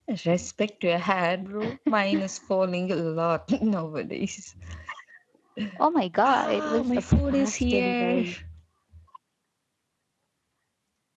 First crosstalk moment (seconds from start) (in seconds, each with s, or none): 6.2 s